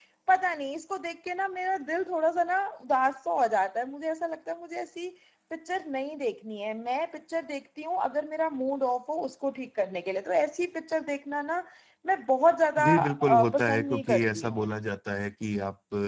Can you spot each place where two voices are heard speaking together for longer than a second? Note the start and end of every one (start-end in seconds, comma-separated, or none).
12.8-14.7